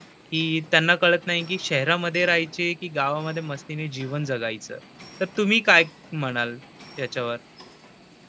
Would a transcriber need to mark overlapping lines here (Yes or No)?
No